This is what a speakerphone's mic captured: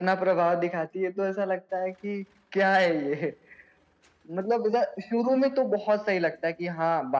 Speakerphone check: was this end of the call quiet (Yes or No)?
Yes